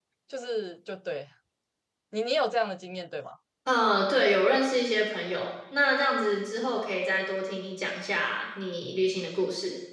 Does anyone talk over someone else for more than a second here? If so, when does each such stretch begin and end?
none

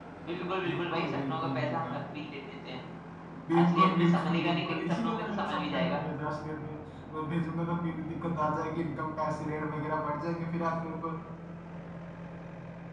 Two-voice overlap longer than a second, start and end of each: 0.7-2.0, 3.6-6.0

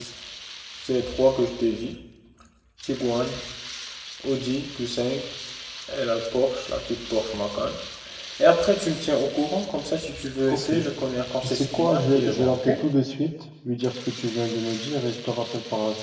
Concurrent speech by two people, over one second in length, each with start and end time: 11.4-12.7

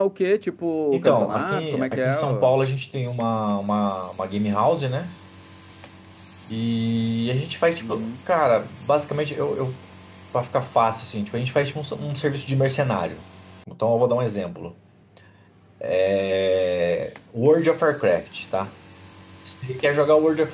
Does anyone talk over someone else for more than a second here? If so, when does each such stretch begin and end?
0.9-2.5

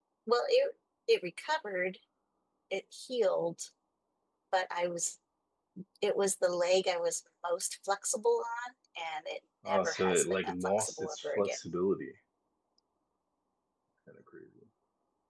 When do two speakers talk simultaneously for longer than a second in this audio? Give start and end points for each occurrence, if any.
9.7-11.6

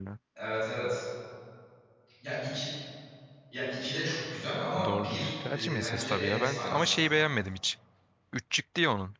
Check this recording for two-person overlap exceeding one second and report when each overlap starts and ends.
4.8-7.0

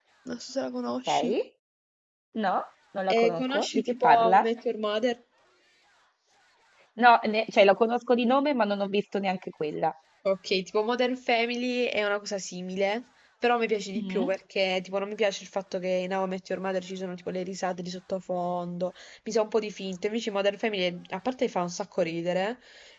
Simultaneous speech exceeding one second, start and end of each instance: 3.2-4.5

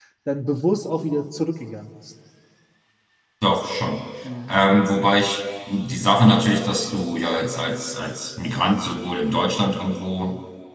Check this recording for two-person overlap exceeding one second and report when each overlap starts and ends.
none

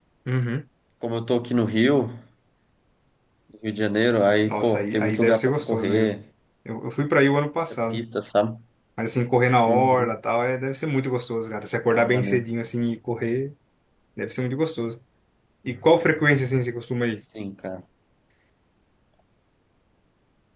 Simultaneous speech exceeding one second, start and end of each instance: 4.5-6.1

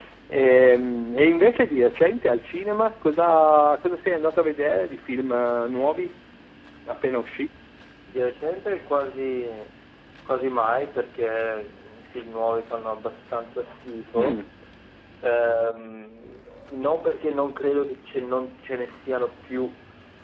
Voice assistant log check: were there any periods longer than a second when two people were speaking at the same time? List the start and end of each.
none

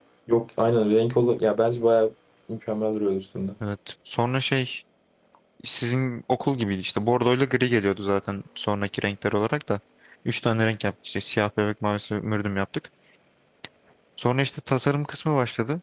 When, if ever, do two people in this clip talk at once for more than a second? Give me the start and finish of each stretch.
none

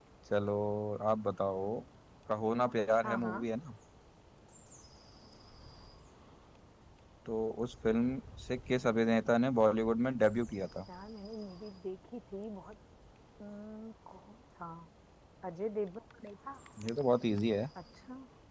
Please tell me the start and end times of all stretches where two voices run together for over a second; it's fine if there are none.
none

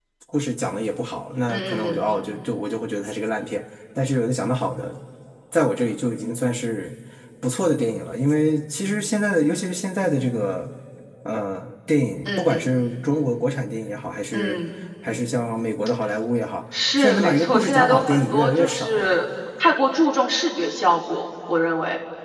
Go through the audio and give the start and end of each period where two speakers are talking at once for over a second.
17.0-19.1

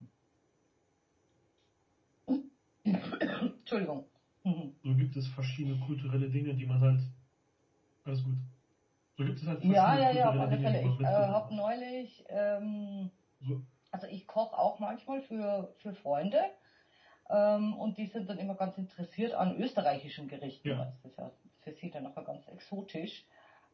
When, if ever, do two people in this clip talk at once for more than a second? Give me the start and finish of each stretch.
9.6-11.6

